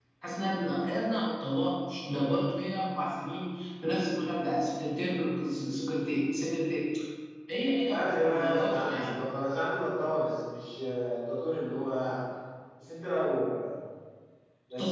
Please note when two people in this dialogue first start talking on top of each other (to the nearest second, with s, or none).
8 s